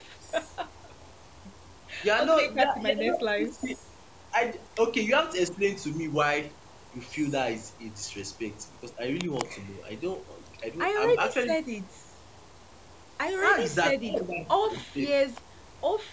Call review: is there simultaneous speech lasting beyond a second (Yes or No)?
Yes